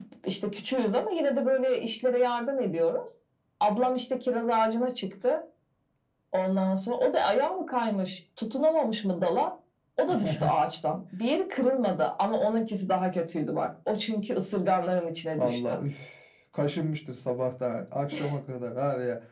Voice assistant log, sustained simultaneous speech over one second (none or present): none